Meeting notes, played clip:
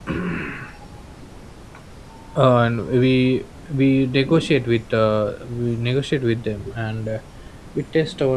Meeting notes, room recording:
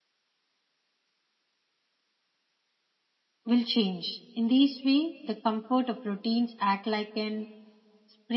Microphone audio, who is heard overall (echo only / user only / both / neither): user only